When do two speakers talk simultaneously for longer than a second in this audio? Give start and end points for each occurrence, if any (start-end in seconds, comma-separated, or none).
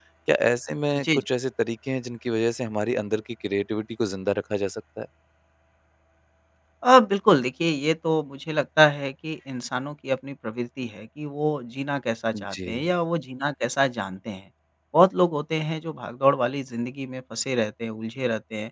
none